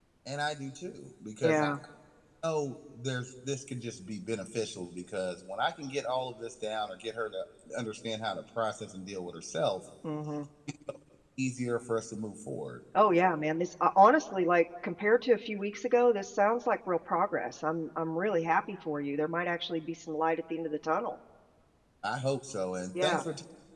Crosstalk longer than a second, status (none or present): none